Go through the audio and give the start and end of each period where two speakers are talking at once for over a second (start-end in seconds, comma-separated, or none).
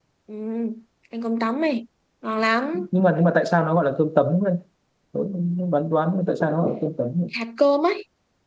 none